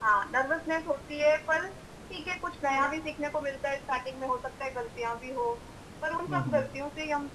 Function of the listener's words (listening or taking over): listening